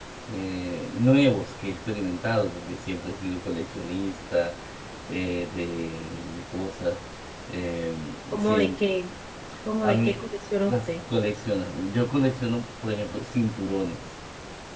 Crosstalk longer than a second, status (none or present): none